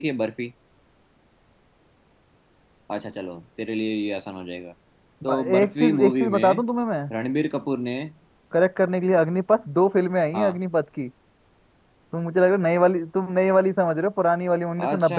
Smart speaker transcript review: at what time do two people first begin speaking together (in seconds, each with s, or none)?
5.2 s